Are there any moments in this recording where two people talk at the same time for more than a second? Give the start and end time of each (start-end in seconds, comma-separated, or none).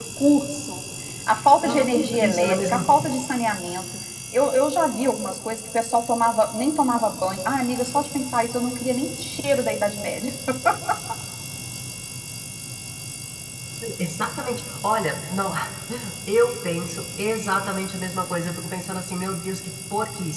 1.9-3.1